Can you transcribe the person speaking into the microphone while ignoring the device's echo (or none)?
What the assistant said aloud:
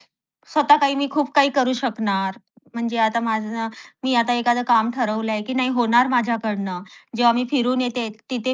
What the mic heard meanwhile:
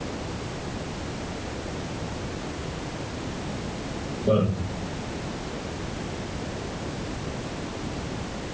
बरोबर.